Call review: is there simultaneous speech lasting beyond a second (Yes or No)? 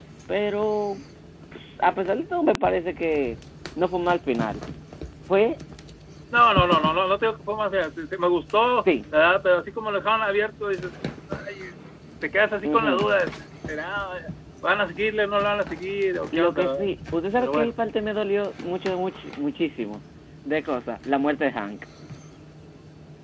No